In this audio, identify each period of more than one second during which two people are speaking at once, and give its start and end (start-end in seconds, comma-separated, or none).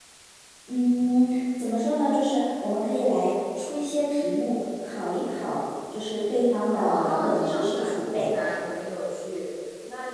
6.7-8.3